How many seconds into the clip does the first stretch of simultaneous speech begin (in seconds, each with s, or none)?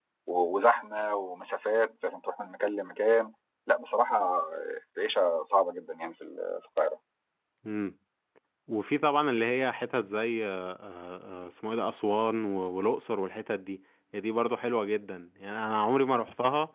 none